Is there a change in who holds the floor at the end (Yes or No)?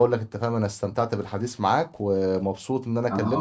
No